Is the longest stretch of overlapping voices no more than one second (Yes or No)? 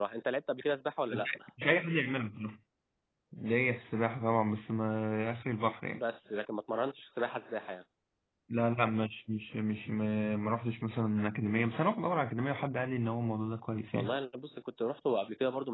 Yes